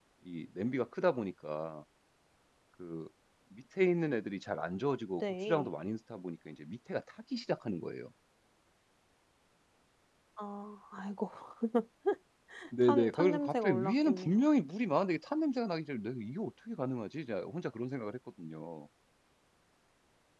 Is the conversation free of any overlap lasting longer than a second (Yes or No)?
No